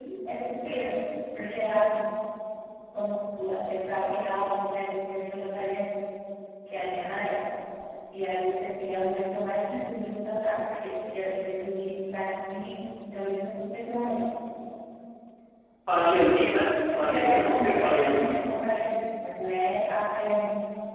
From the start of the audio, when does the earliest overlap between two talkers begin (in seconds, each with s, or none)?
16.9 s